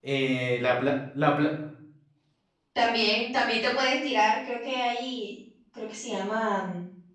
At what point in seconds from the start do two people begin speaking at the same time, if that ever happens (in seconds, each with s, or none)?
none